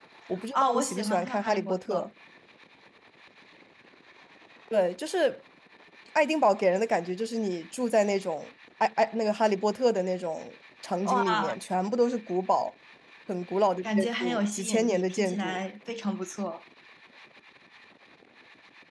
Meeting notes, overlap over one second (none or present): present